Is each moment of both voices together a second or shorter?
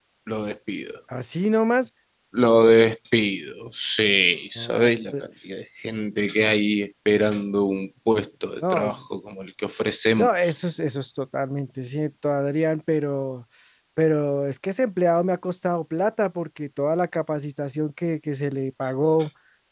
Yes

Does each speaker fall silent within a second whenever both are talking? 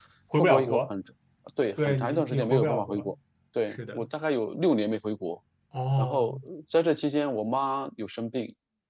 No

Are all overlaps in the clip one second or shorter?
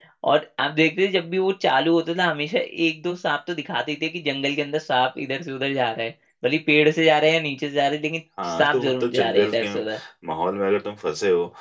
No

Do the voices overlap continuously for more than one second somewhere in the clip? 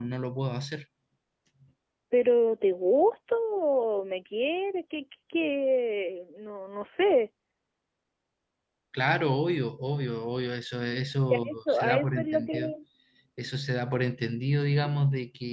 Yes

